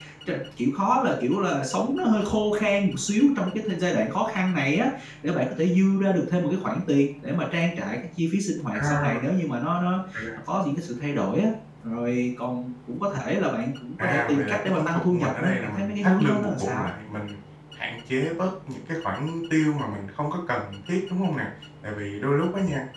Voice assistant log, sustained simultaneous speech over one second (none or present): present